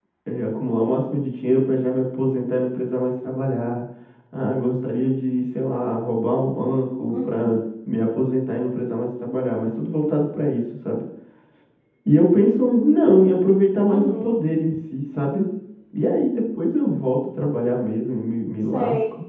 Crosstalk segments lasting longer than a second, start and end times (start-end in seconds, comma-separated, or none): none